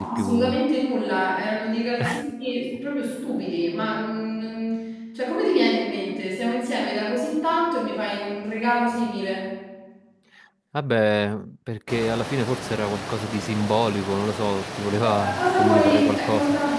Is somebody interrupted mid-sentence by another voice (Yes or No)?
Yes